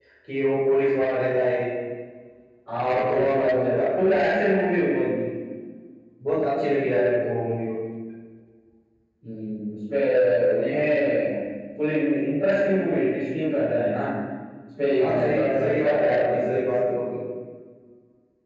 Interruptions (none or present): present